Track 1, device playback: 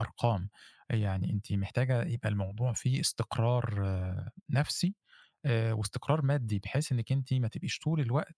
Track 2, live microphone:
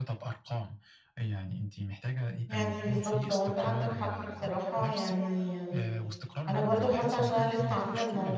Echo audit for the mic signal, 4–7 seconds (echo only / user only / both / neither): both